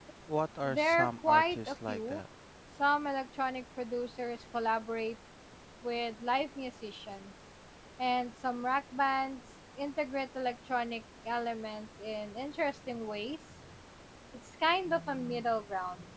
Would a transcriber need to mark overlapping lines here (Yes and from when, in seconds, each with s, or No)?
Yes, from 0.6 s